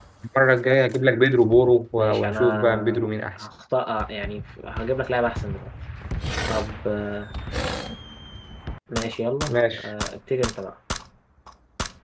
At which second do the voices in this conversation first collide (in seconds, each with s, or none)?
2.0 s